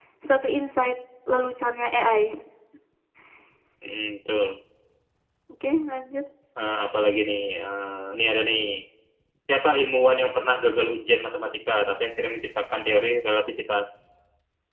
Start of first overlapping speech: none

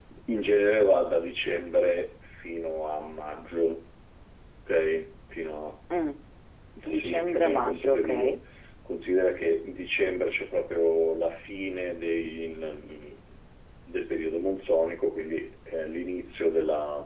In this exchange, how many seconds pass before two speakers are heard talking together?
6.9 s

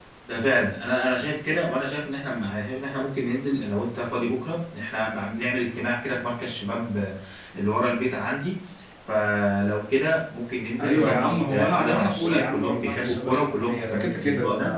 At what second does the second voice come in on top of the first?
10.8 s

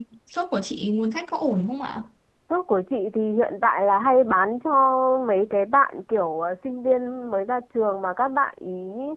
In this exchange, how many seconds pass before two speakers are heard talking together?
none

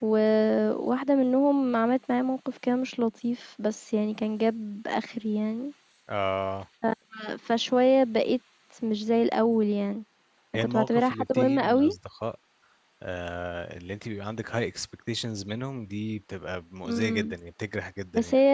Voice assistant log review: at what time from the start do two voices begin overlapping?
10.6 s

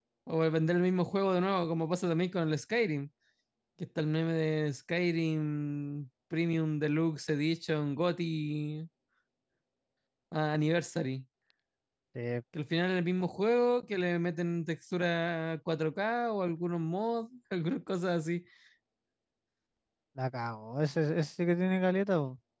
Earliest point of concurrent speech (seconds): none

